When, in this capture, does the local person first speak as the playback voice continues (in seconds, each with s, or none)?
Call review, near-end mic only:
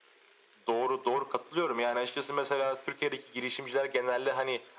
none